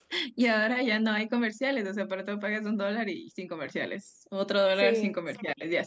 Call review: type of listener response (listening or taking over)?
listening